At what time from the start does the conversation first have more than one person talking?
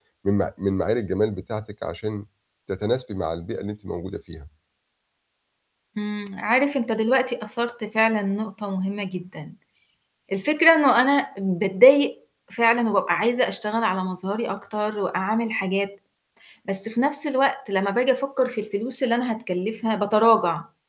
none

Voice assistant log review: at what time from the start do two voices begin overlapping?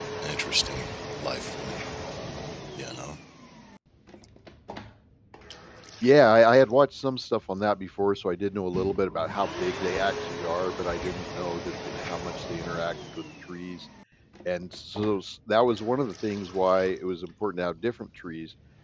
none

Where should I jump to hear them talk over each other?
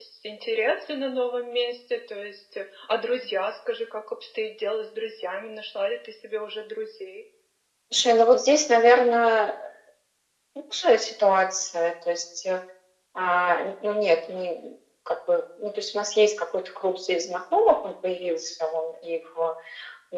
none

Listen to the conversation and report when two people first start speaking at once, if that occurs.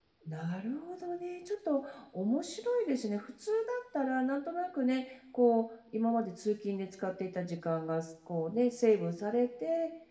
none

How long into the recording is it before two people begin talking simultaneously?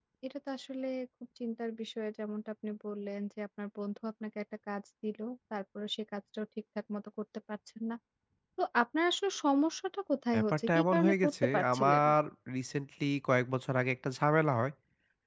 10 s

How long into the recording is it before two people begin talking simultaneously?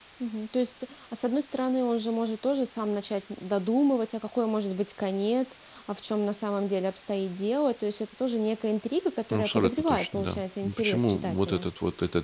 9 s

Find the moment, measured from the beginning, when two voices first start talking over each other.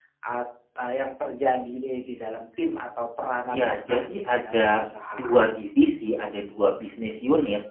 3 s

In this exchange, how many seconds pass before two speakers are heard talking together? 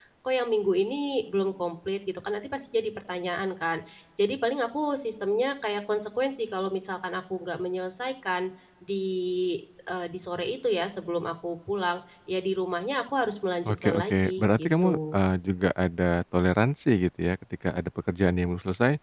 14 s

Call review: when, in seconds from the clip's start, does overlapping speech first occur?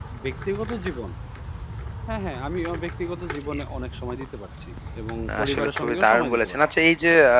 5 s

